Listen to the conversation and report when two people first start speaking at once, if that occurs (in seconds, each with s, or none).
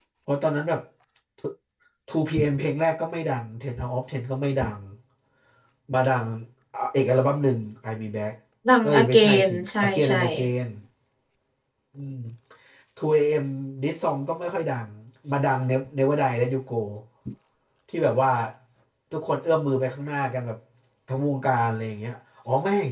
8.8 s